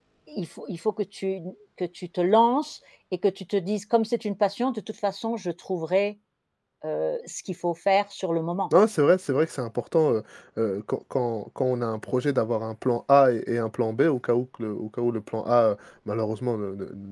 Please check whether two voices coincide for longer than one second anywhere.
No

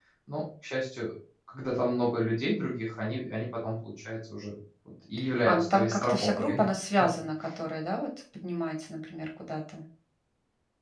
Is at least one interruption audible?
Yes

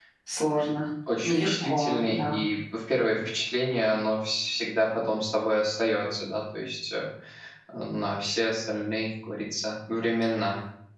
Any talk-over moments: Yes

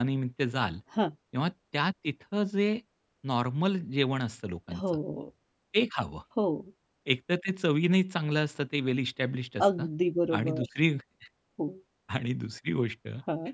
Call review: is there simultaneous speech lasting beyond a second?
No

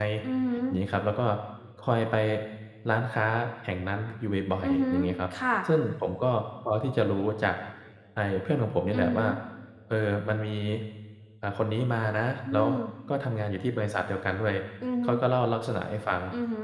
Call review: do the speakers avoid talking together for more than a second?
Yes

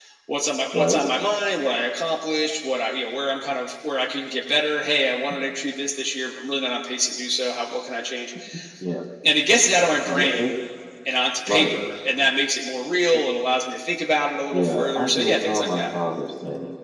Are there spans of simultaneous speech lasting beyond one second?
Yes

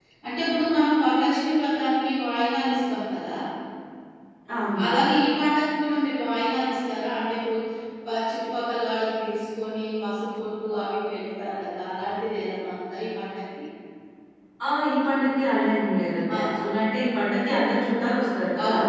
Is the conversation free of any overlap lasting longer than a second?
Yes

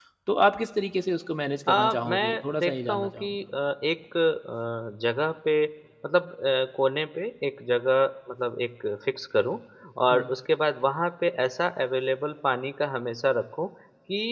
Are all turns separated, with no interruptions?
No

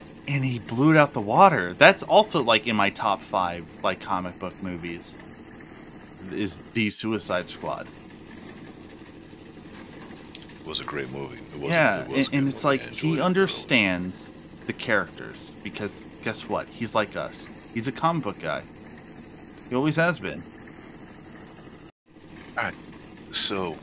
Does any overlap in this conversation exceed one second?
Yes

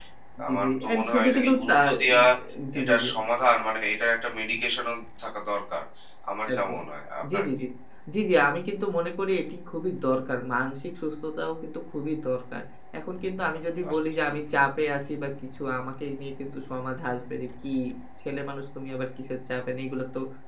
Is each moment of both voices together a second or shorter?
No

